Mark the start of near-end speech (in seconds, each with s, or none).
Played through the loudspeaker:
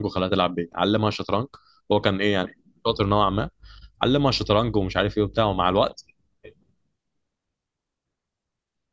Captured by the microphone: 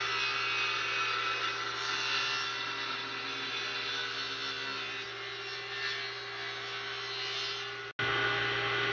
none